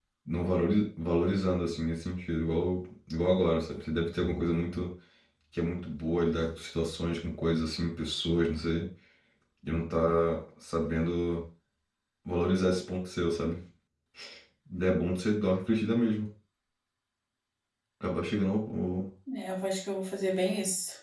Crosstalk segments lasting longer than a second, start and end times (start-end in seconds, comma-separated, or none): none